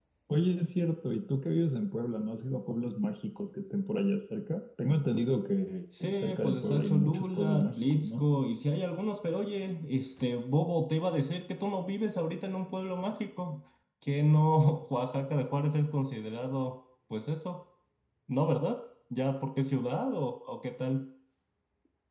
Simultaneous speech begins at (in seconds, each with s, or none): 5.9 s